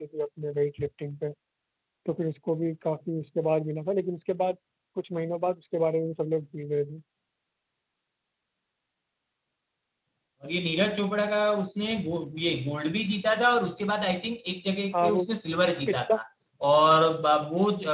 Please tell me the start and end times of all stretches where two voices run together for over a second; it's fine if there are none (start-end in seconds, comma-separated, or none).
none